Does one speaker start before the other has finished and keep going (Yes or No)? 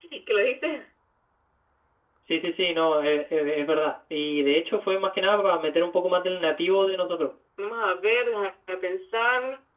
No